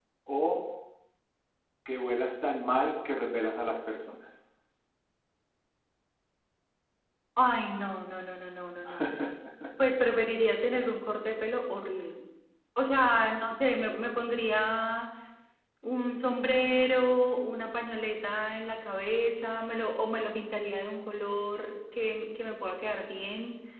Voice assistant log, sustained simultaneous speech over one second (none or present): none